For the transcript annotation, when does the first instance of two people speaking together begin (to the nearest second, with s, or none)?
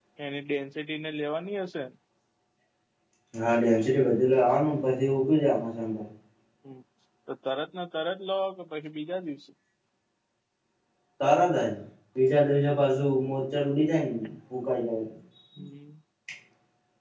none